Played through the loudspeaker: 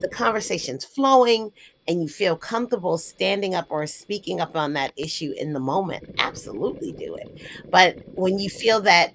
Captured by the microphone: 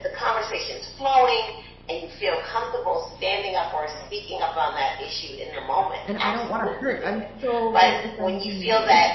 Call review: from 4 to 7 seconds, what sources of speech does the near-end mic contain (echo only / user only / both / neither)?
both